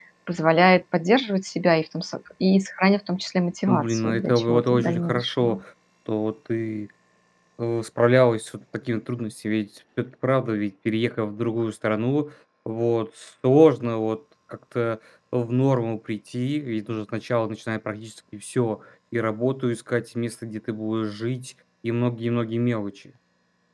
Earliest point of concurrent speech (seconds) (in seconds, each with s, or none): 3.7 s